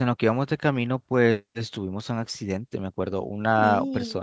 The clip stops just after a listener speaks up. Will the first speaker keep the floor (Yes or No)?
Yes